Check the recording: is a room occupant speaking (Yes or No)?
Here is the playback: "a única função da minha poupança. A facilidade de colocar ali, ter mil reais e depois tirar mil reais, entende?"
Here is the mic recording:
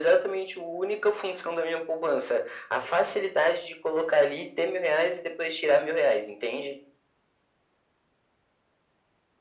No